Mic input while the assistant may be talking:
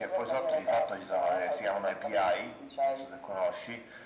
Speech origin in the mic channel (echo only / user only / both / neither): echo only